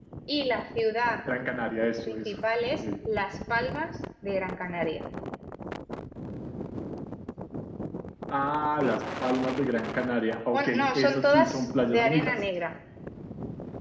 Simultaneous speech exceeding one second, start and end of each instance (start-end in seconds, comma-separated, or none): 10.5-12.3